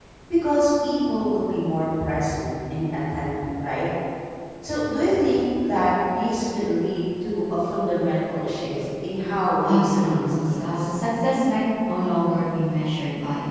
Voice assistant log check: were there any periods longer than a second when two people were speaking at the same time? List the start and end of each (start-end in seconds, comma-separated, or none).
9.6-10.9